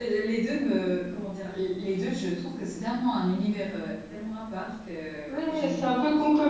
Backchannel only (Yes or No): No